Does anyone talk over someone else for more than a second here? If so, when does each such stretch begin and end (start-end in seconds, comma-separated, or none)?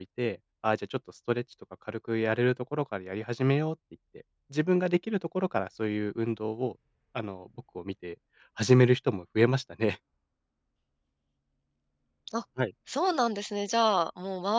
none